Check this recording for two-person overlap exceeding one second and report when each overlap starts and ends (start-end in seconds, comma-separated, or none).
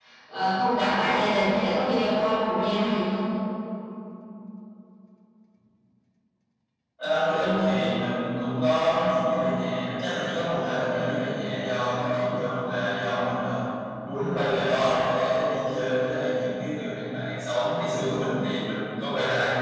none